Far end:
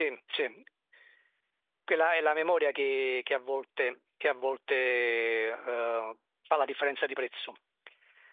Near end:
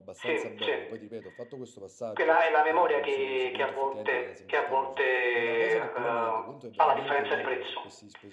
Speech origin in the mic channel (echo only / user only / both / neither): both